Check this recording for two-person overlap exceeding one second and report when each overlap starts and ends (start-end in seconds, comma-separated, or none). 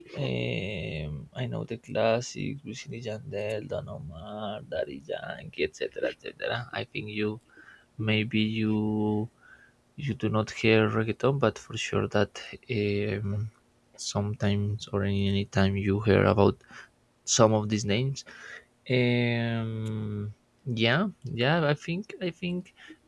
none